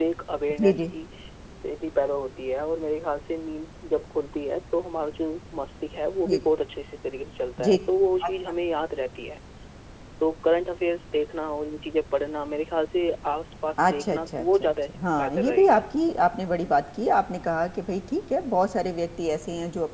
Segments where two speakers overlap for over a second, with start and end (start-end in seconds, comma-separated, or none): 13.8-15.8